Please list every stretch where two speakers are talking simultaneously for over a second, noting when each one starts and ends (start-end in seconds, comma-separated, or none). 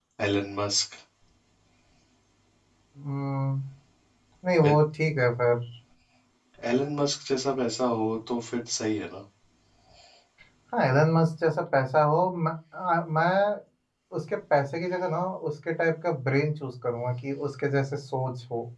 none